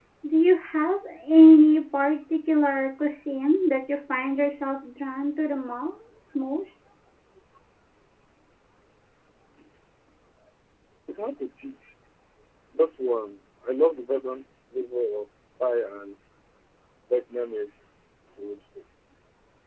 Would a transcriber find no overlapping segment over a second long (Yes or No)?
Yes